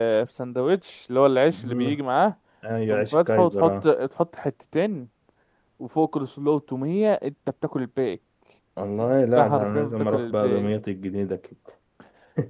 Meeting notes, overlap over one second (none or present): present